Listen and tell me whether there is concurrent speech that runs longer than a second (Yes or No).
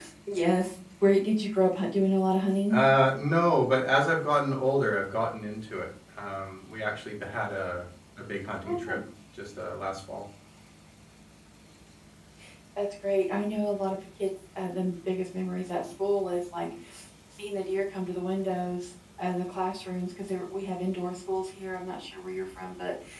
No